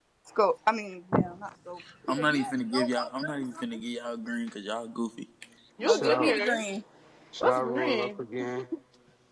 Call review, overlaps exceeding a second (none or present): present